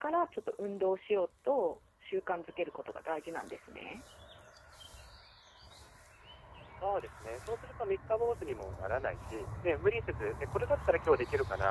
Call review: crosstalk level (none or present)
none